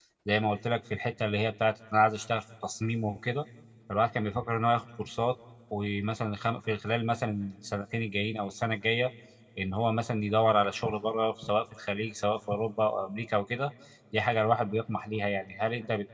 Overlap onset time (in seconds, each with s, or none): none